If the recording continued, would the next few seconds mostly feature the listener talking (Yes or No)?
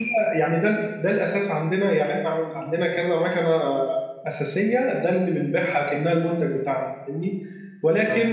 No